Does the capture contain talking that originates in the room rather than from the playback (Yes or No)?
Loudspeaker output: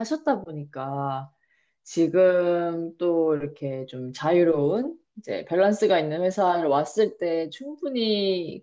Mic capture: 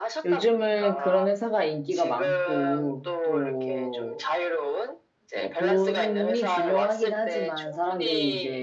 Yes